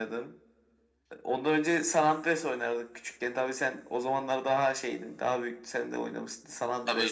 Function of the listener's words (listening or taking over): taking over